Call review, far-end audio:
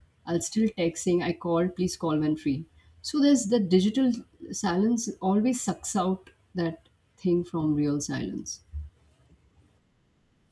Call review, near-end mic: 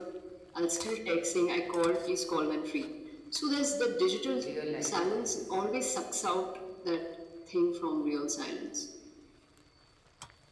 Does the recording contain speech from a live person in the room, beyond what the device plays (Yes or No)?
Yes